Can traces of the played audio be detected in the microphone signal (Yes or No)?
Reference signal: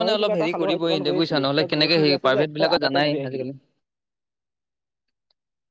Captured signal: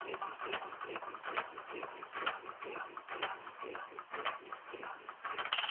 No